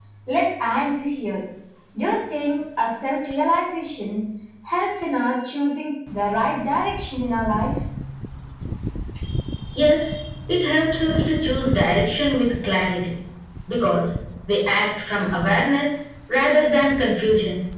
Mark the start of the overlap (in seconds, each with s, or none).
none